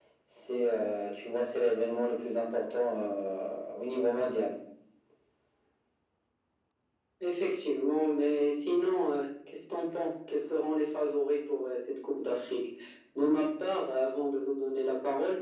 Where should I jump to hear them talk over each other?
none

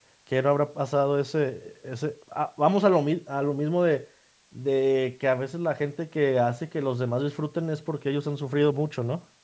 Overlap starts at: none

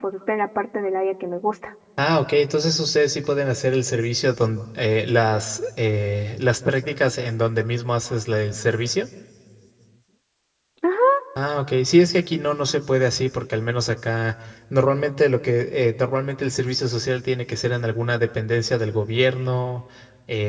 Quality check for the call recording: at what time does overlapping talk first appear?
none

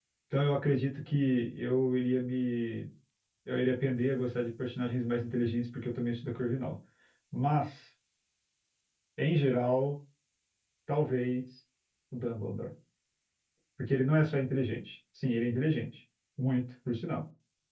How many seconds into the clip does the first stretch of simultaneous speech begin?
none

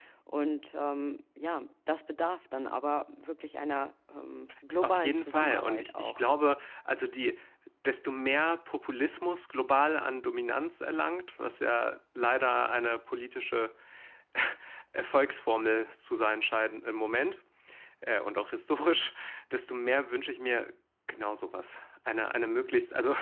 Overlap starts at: 4.8 s

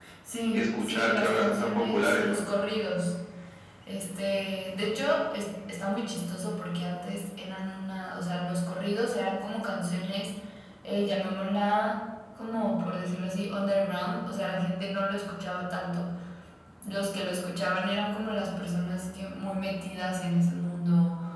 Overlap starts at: 0.5 s

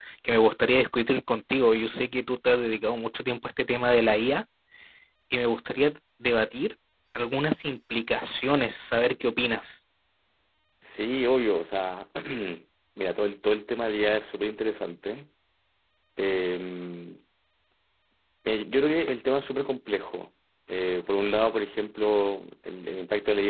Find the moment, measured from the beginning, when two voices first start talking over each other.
none

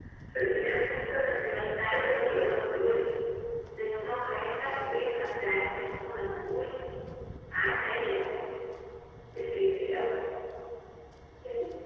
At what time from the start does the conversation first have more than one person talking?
1.2 s

